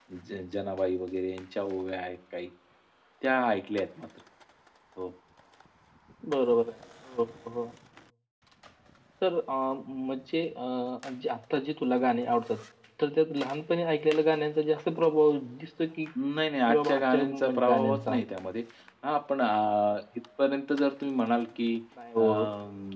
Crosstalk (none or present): present